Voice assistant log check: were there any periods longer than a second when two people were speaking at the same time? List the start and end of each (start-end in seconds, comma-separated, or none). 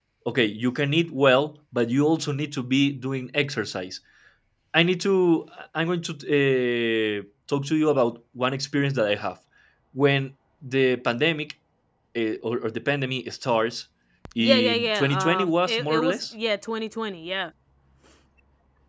14.4-16.2